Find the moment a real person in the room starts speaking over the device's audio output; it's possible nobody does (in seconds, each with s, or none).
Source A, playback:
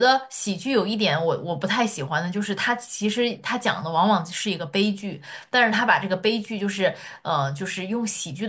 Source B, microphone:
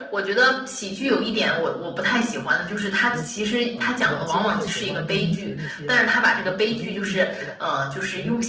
3.1 s